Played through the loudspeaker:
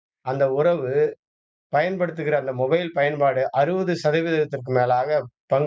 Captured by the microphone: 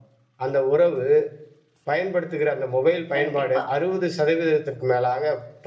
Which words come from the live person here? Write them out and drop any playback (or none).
கண்டிப்பா.